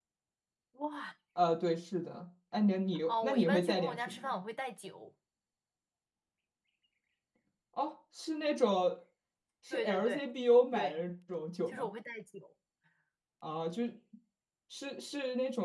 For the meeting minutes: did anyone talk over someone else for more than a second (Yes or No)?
Yes